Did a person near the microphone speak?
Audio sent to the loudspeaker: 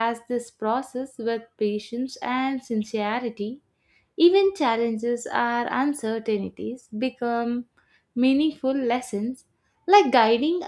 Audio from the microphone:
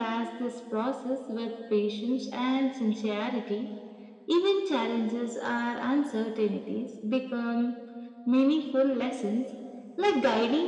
No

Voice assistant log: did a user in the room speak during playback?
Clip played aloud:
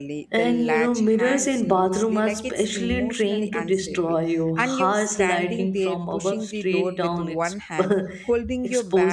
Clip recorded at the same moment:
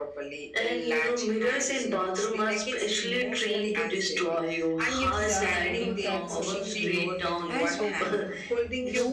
Yes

